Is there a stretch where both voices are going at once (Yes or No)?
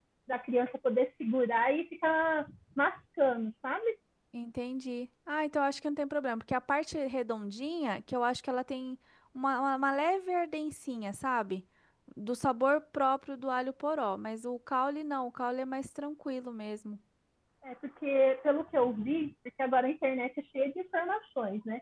No